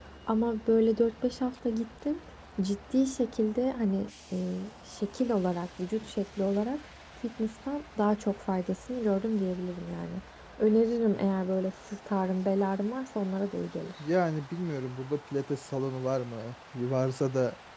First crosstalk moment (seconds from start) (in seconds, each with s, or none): none